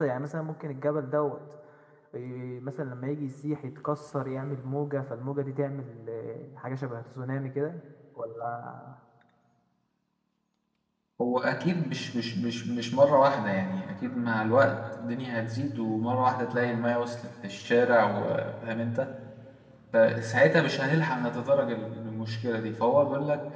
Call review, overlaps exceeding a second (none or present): none